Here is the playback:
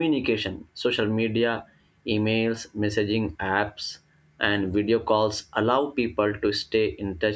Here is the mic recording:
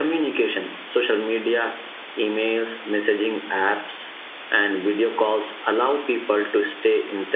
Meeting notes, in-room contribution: none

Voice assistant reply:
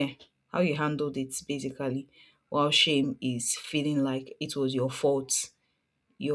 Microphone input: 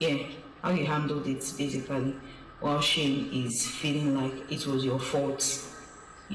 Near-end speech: none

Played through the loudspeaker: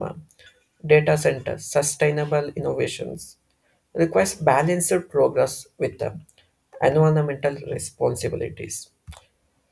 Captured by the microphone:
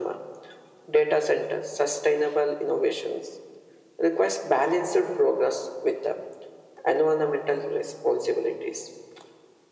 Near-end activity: none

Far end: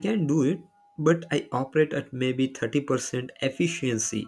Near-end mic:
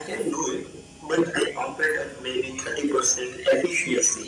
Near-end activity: none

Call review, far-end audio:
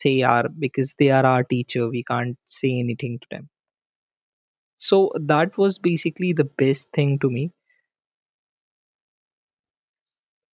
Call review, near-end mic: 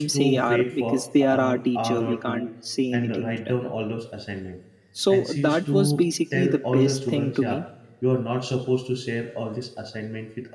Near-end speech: present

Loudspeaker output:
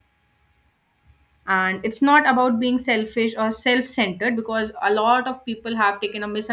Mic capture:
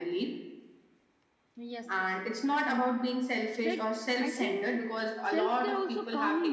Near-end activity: present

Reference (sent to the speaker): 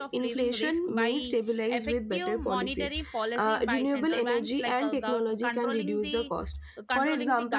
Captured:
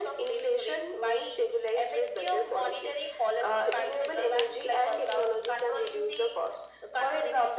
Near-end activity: none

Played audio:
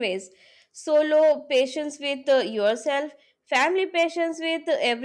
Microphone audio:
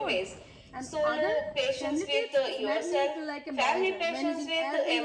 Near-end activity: present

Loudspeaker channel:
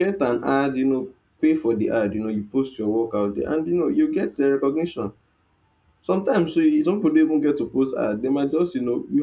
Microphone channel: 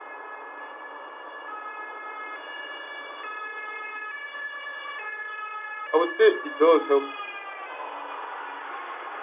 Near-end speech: present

